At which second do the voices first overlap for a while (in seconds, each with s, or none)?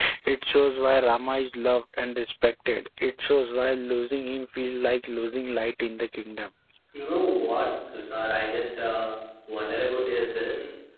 none